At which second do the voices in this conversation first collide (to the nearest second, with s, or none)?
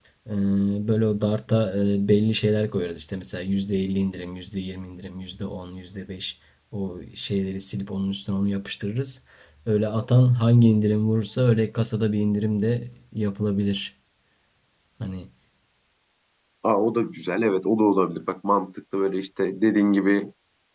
none